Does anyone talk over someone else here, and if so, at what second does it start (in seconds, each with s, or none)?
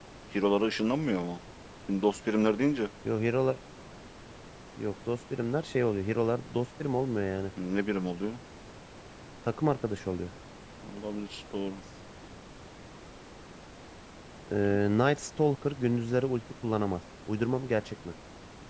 none